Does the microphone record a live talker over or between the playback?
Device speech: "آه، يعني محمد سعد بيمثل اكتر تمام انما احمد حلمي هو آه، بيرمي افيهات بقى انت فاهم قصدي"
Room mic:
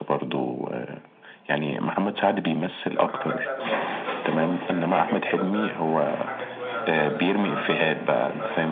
Yes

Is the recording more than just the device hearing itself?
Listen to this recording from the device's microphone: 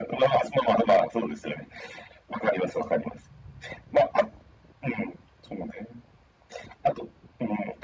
No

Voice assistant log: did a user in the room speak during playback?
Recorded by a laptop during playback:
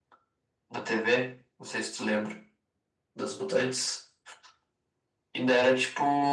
No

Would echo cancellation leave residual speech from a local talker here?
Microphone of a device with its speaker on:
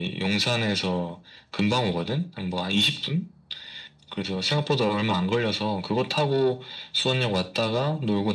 No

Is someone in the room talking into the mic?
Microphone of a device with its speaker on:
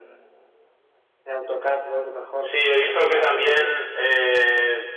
No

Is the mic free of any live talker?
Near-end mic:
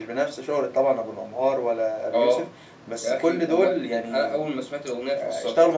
Yes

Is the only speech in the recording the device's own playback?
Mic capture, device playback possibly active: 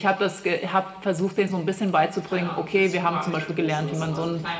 No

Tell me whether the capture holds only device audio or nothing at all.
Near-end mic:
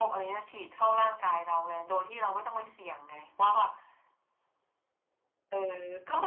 Yes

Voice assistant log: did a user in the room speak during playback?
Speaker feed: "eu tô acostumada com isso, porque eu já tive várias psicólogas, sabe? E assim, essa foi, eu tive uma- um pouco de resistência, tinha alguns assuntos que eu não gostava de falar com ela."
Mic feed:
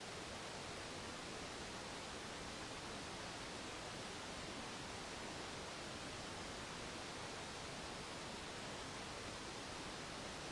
No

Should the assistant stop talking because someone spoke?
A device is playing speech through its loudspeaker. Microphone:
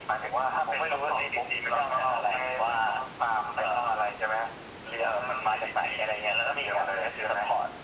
No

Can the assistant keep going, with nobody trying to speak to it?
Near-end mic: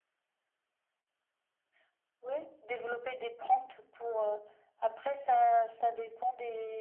Yes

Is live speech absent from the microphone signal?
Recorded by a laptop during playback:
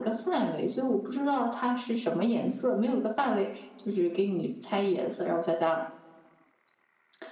Yes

